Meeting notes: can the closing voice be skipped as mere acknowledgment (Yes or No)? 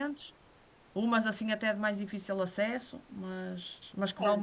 No